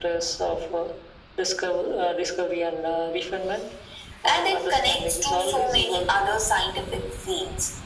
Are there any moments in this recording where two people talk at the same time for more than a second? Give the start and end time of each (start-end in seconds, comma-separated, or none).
4.3-6.2